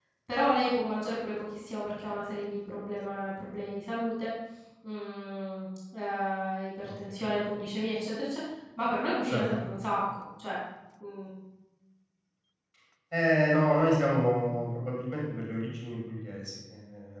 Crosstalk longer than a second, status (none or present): none